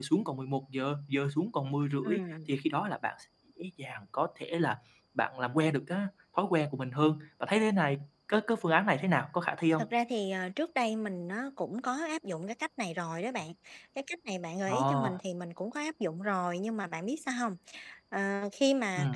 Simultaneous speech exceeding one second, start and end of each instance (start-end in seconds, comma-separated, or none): none